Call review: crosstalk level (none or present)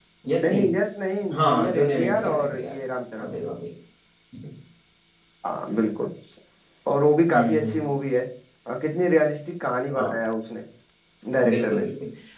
present